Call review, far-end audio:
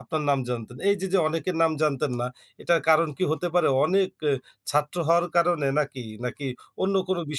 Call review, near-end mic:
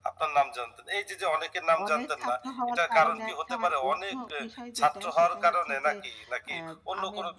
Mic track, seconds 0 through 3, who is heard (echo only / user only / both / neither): both